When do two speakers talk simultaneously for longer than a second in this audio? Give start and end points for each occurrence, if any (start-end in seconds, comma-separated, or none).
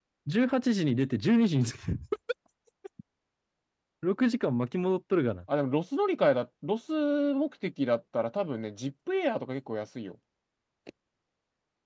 none